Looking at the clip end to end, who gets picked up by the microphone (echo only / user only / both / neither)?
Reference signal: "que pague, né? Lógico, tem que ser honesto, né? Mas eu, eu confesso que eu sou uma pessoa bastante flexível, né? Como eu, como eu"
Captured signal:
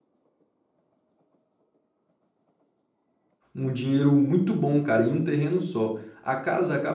user only